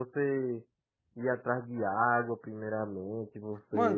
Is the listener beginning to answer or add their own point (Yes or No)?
Yes